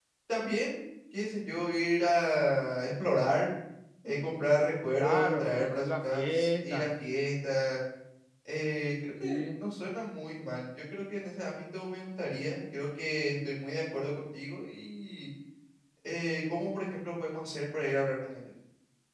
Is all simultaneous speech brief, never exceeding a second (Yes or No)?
No